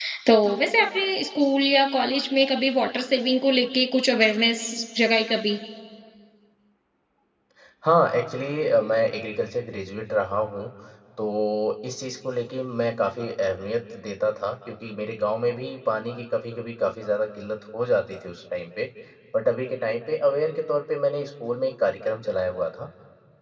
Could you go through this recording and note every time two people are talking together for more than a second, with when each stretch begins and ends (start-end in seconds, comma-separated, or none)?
none